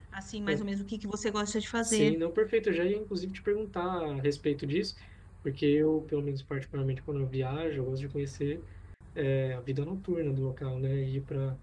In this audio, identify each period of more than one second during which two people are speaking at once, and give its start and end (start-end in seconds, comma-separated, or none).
none